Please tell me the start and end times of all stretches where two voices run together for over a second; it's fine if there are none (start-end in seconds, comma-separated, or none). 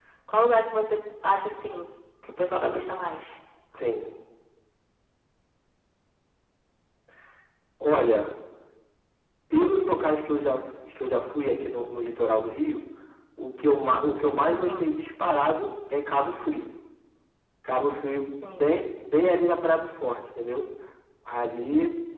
none